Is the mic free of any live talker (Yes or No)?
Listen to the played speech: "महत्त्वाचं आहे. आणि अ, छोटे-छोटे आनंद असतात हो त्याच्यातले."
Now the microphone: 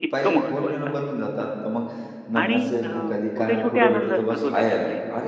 No